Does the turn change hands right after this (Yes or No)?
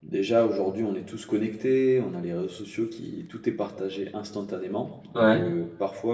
No